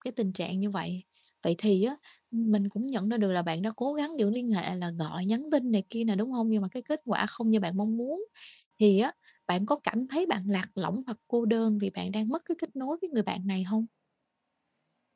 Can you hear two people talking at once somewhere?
No

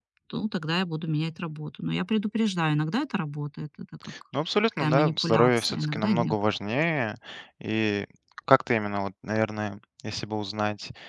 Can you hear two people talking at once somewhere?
Yes, from 4.8 s

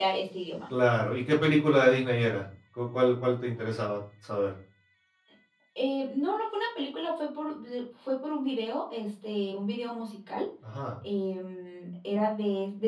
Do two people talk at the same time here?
No

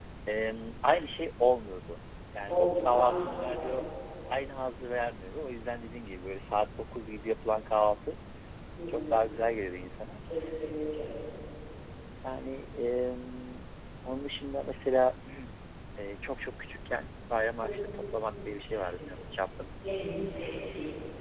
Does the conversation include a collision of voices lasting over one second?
Yes, from 2.5 s

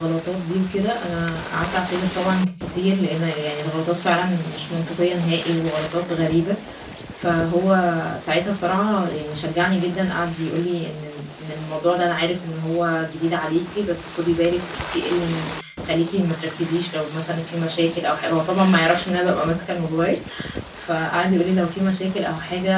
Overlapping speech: No

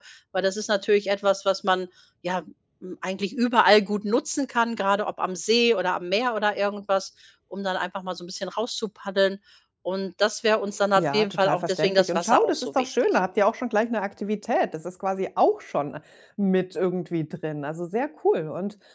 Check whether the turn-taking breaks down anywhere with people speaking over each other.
Yes, from 10.9 s

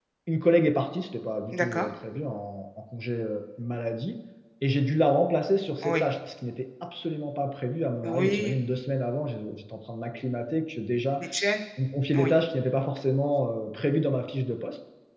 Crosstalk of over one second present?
No

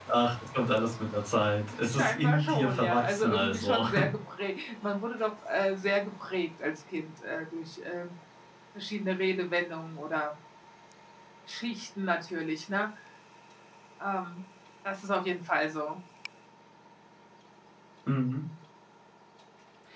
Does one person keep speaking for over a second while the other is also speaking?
Yes, from 1.7 s

